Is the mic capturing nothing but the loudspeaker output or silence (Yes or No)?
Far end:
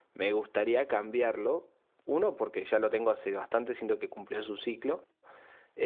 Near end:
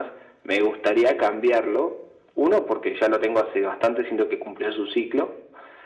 Yes